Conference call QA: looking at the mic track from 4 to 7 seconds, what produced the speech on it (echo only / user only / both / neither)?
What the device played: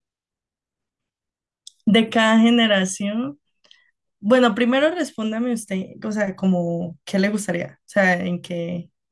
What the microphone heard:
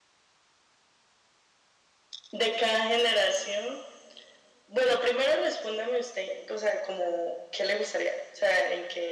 echo only